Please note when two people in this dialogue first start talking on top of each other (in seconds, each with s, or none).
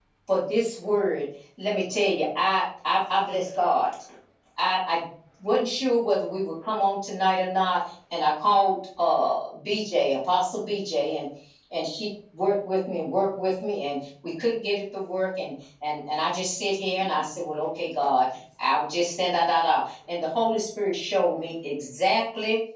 none